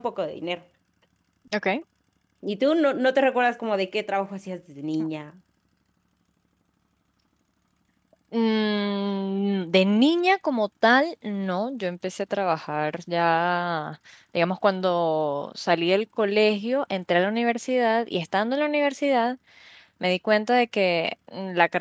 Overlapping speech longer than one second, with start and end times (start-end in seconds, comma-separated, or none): none